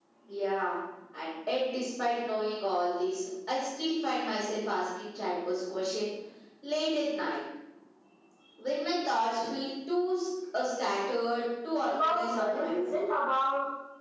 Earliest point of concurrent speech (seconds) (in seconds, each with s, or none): 11.8 s